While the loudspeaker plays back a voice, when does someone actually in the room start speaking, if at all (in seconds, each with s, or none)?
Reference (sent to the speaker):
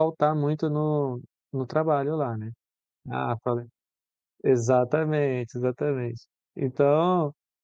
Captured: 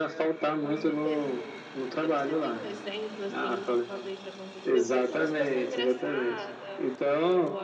0.6 s